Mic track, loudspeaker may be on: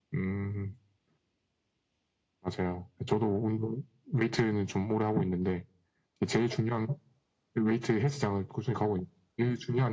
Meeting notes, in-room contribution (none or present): none